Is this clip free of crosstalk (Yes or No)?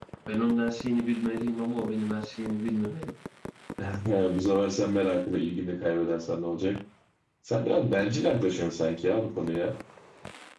Yes